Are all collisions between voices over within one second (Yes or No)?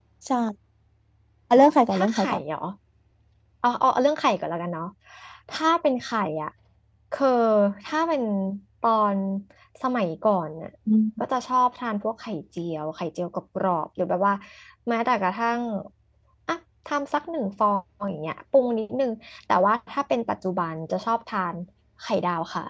Yes